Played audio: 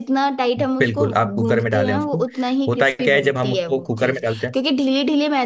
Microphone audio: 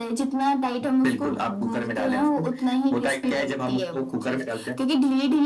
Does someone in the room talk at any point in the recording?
No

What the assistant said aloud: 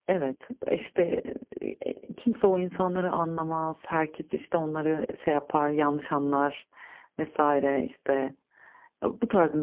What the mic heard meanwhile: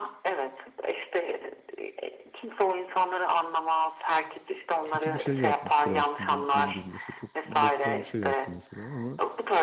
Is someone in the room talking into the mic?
Yes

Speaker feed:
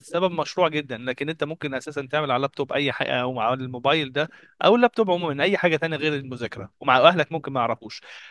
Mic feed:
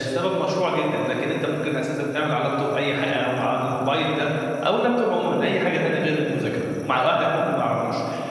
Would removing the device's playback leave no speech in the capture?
Yes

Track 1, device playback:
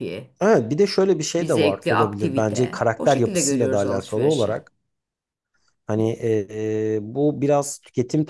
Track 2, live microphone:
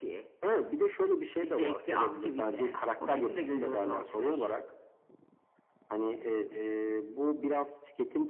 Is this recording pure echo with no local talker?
Yes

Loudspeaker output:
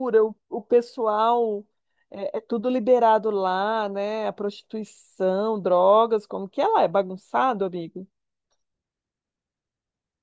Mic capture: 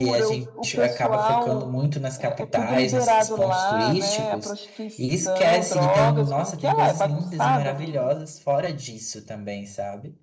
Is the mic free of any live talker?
No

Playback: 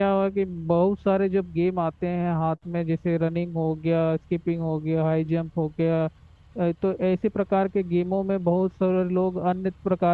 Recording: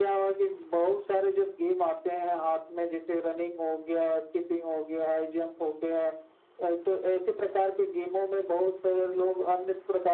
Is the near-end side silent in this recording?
Yes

